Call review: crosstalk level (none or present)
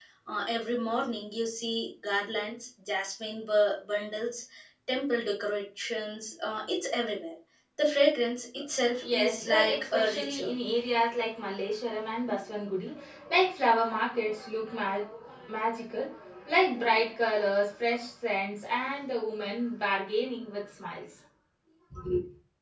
present